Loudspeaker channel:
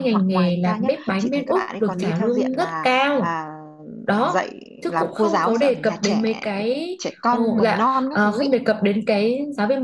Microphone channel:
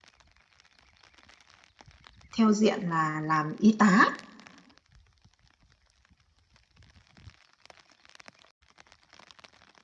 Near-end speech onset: 2.4 s

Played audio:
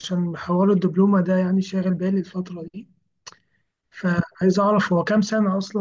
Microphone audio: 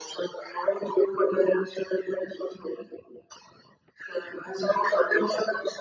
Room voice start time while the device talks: none

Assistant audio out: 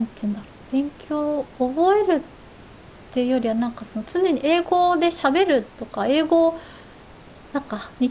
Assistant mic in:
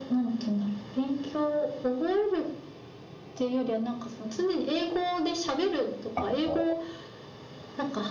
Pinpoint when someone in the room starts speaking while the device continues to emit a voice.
6.1 s

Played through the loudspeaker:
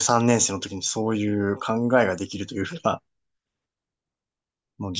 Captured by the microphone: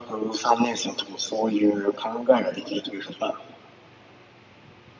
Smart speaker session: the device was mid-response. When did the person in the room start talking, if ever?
none

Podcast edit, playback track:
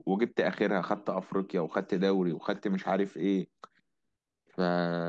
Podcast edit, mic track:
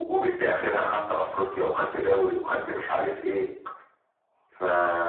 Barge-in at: none

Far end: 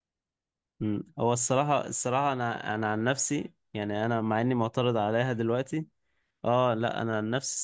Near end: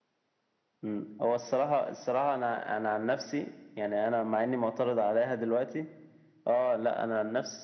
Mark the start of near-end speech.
none

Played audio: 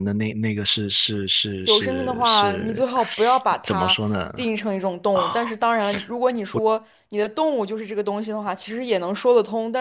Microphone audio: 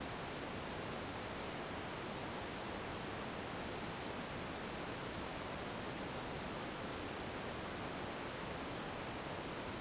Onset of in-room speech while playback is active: none

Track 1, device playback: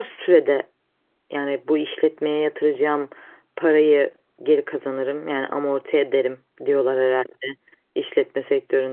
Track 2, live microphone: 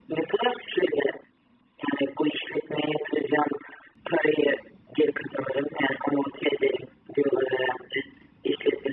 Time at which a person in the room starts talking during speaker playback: none

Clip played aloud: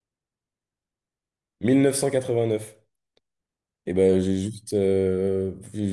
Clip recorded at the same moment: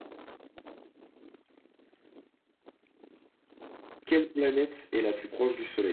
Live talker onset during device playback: 4.0 s

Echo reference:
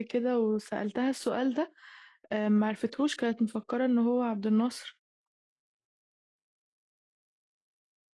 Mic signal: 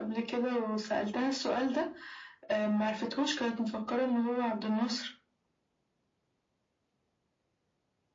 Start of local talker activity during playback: none

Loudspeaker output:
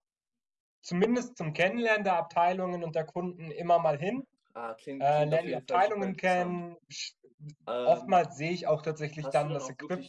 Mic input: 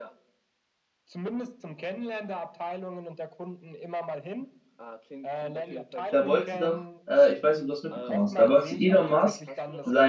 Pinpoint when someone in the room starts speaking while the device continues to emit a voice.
6.1 s

